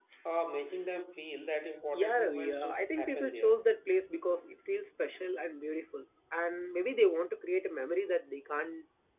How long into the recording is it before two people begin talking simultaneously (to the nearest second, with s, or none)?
2 s